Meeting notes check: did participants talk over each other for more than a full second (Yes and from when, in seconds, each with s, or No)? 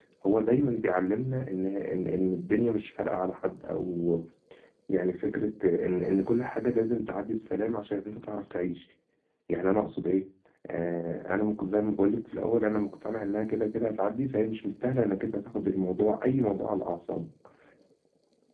No